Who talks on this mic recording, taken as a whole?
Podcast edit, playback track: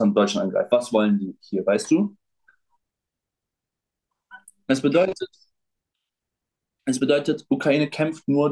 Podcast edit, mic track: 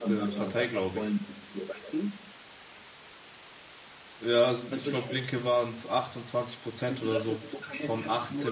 both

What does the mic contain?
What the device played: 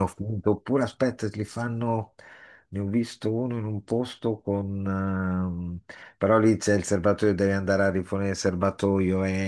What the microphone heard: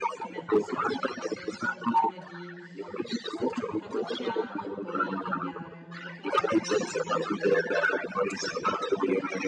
both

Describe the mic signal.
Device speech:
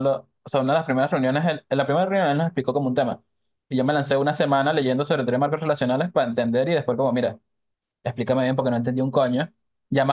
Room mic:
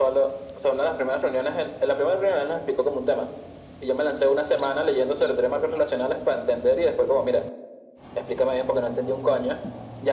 echo only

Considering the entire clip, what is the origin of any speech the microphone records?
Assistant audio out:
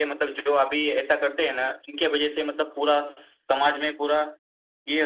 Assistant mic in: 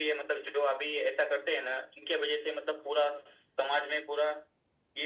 echo only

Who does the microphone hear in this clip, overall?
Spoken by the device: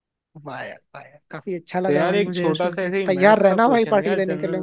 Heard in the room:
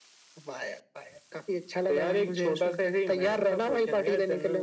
echo only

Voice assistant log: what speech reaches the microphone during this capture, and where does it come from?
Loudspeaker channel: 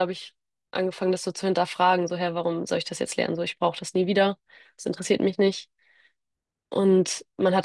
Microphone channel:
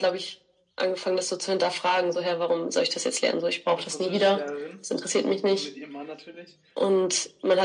both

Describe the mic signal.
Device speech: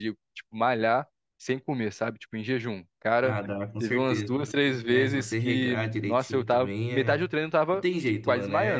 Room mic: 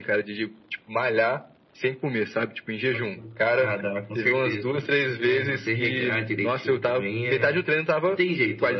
both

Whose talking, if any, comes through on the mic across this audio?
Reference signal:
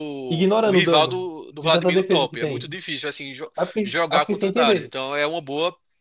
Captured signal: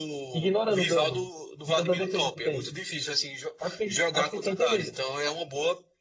echo only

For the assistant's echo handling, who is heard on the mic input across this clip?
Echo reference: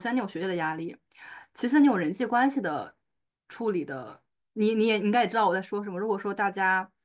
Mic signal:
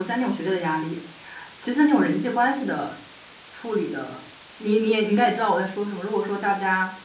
echo only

